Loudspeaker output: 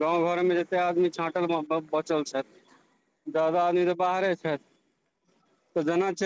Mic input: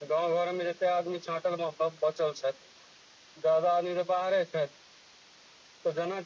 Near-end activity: none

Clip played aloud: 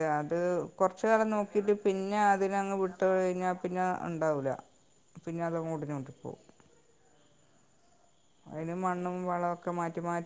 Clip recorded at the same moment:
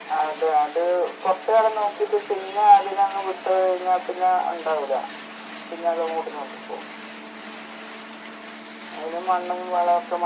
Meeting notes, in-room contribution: none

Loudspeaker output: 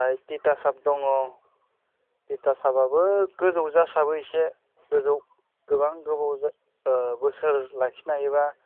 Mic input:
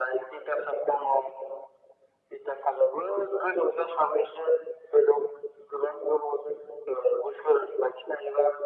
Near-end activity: none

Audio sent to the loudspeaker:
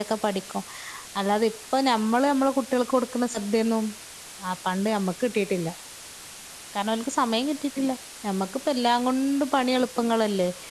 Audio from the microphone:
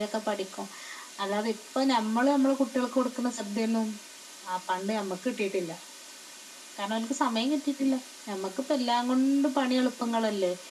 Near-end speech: none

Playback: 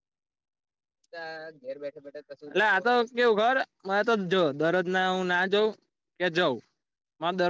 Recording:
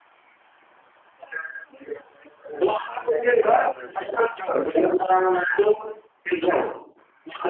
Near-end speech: present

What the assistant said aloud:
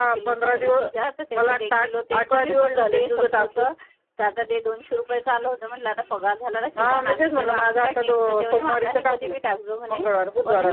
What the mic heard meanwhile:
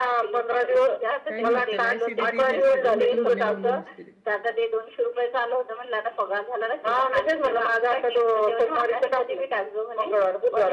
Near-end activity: present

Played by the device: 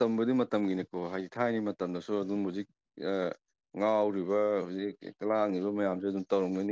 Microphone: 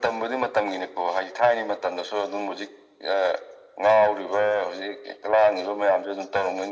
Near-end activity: none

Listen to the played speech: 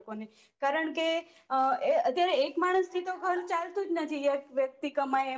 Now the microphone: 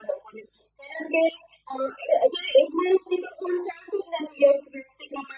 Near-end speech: none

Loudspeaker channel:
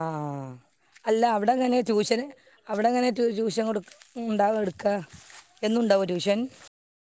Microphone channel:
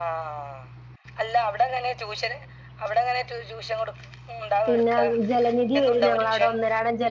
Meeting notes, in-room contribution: present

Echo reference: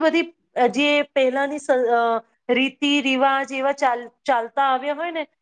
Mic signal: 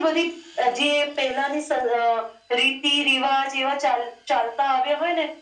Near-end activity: none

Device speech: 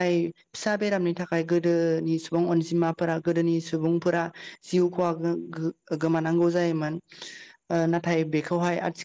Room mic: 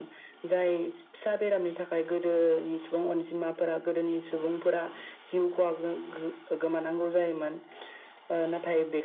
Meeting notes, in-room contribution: none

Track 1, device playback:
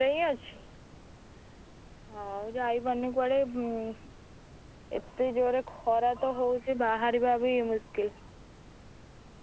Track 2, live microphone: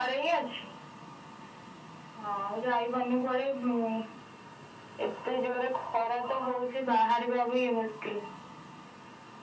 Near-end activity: none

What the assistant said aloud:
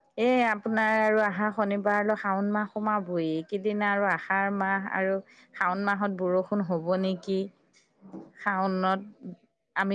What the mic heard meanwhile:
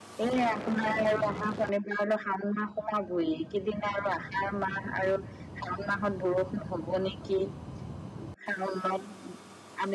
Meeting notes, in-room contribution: none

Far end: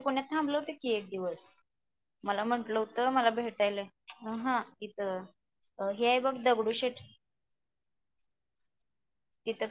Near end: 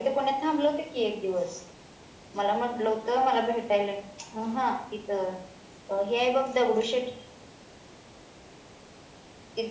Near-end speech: none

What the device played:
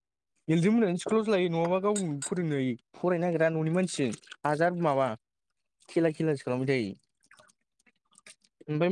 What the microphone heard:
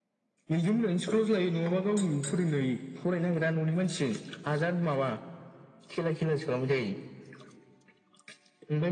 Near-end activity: none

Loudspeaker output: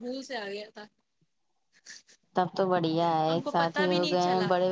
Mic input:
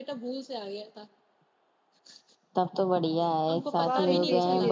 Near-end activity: present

